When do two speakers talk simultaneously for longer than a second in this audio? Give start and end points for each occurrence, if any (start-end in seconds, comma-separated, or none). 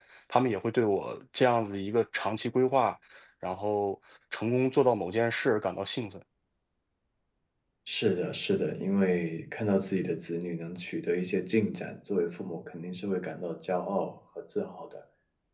none